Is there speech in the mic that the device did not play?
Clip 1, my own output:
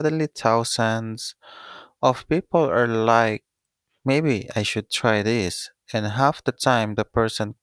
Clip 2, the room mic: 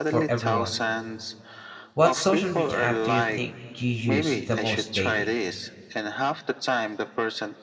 Yes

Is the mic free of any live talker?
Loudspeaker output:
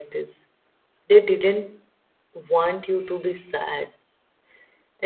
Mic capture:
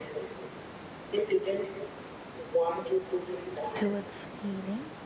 No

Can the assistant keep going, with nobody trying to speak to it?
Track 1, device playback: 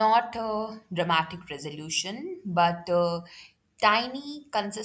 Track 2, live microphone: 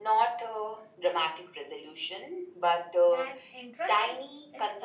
No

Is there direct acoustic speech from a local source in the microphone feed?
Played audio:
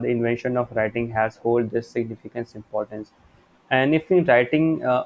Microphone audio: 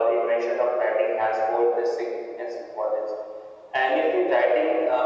No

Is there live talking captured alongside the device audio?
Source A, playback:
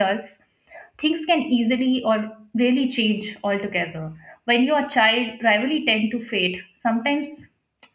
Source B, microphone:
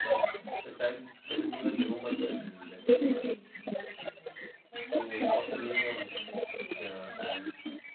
Yes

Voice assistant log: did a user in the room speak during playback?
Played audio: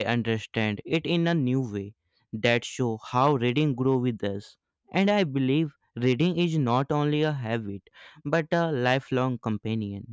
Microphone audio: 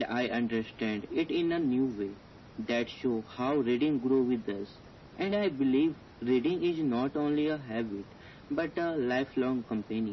No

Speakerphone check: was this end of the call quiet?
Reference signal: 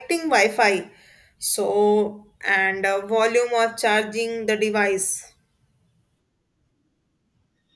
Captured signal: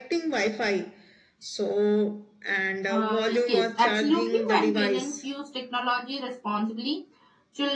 No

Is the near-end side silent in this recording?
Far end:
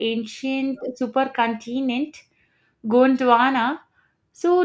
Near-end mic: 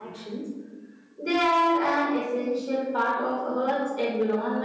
No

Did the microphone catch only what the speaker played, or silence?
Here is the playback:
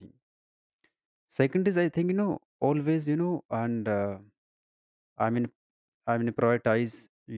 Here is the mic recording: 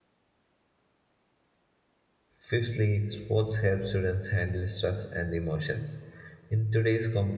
No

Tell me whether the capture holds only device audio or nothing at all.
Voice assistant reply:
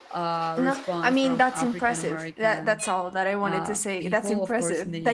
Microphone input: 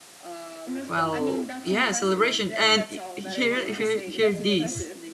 No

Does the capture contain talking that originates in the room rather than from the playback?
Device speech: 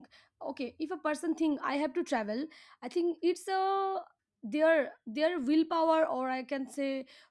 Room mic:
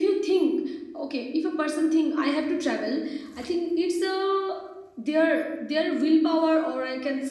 No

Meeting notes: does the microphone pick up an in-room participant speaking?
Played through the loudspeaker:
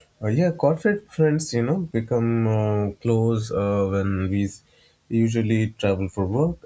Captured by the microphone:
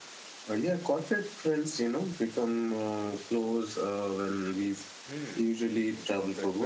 Yes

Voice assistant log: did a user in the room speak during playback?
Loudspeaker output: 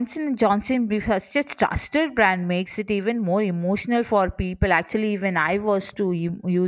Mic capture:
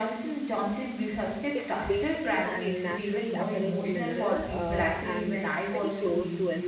Yes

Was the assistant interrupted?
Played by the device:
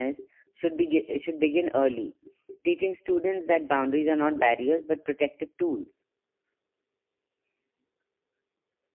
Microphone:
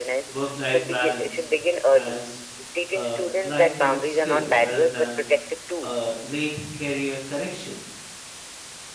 Yes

